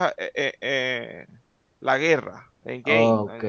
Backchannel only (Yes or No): No